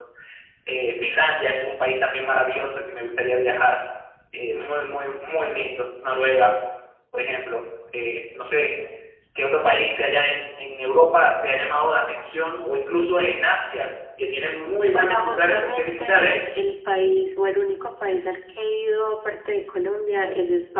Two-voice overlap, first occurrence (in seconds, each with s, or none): 14.9 s